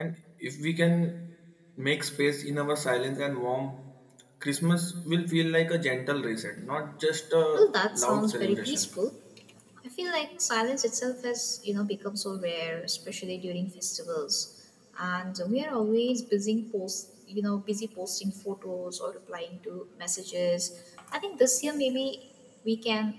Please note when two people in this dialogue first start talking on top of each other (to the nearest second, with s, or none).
8 s